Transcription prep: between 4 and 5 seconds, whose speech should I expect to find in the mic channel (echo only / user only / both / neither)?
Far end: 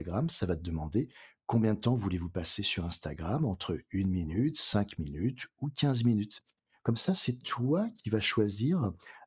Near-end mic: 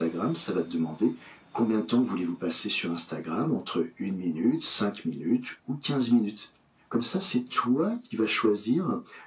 echo only